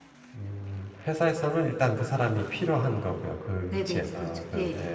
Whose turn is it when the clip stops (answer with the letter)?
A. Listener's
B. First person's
A